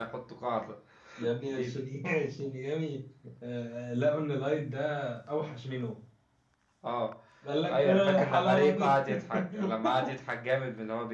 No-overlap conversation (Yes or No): No